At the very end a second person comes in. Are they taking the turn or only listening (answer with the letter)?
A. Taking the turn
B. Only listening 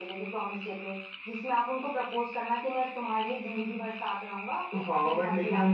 A